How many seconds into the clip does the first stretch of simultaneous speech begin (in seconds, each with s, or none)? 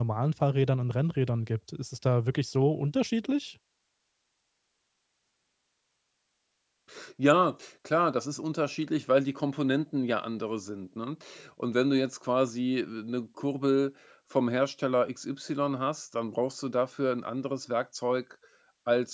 none